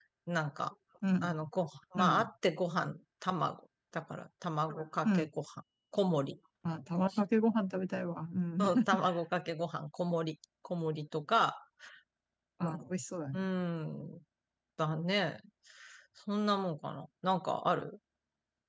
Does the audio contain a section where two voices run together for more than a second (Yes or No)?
No